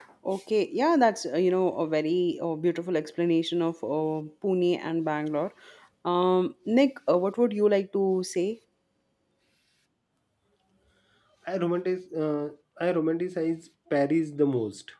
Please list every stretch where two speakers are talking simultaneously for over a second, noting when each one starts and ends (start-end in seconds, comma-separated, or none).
none